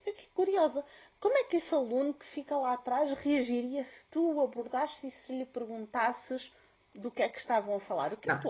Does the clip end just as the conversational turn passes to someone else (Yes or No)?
Yes